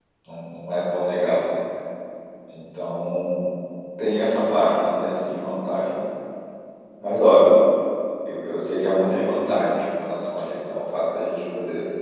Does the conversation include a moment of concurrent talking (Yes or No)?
No